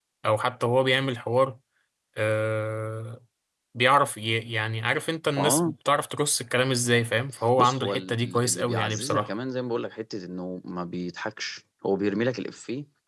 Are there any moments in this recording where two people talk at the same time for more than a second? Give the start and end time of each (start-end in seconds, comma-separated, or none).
7.6-9.3